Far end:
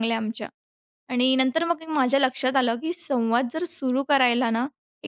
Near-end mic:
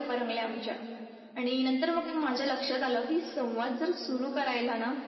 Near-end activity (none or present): none